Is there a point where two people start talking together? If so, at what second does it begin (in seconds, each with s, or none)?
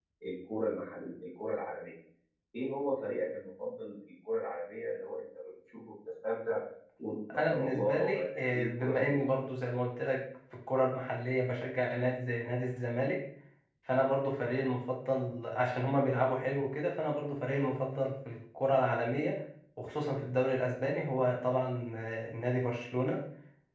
7.4 s